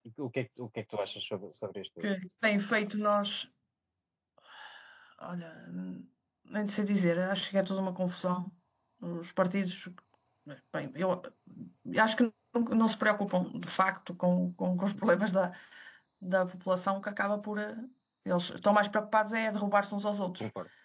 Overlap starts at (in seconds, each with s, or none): none